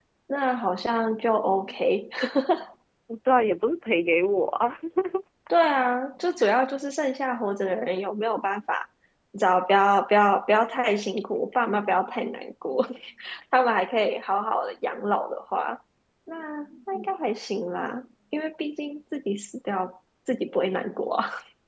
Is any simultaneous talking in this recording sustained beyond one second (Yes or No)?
No